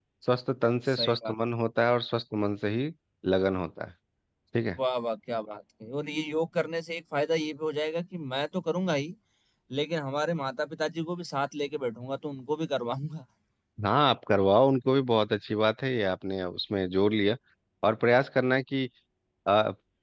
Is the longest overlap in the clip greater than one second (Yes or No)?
No